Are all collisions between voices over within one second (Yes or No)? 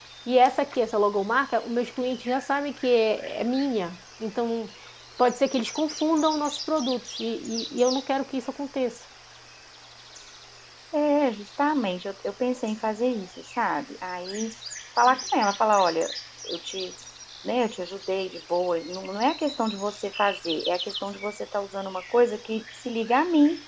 Yes